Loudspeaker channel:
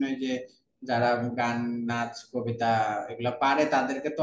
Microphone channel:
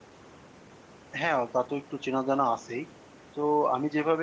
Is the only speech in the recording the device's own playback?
No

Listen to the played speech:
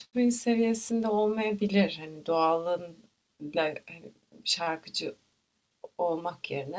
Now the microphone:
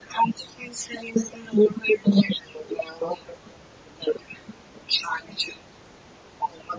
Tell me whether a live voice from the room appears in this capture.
No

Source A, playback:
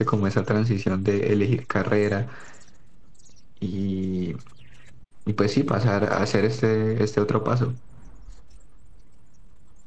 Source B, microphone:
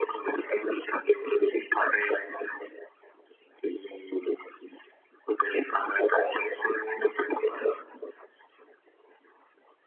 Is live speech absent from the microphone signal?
Yes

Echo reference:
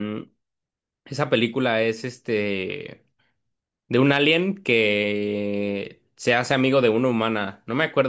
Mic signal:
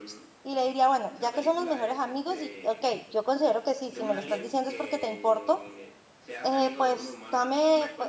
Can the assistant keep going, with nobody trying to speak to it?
No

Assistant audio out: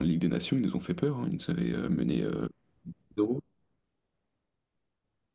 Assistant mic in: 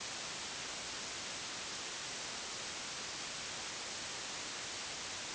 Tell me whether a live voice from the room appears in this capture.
No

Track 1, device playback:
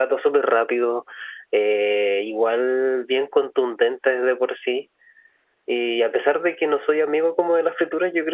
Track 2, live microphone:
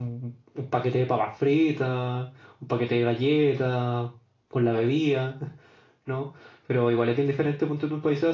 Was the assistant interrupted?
Yes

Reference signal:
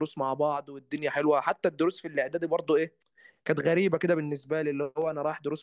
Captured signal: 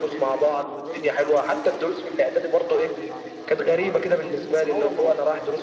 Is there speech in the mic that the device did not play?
Yes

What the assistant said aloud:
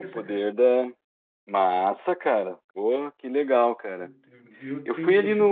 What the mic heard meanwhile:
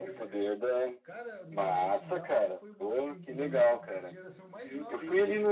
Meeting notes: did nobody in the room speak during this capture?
No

